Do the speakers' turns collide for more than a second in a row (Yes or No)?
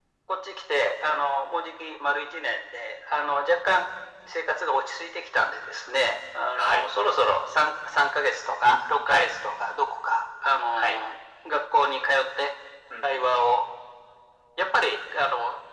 No